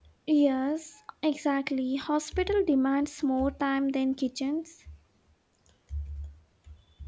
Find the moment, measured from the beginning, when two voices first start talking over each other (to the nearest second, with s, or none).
none